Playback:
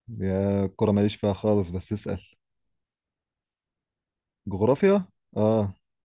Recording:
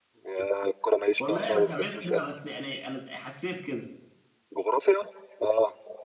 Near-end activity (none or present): present